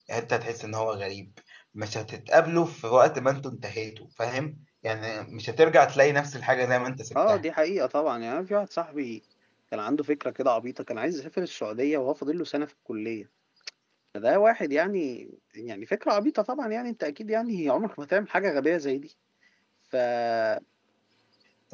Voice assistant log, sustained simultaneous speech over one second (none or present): none